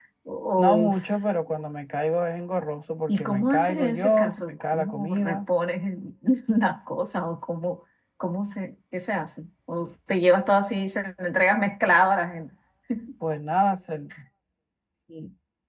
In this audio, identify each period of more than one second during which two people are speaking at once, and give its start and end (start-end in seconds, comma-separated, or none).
3.1-5.4